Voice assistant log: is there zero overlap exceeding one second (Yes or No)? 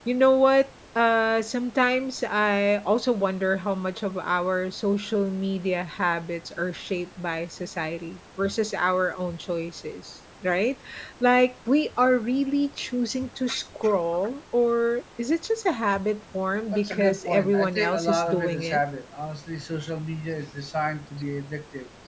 No